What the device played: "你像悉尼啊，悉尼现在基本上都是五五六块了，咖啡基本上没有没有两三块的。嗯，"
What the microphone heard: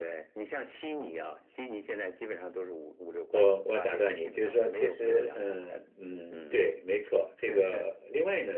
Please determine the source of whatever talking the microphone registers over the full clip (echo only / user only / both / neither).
both